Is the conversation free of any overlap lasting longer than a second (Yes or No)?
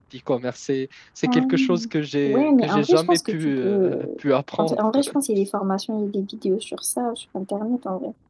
No